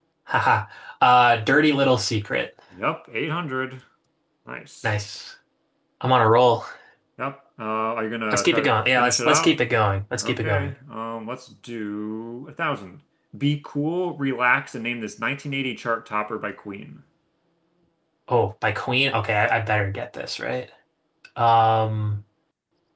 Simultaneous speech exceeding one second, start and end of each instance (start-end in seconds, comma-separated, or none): 8.3-9.5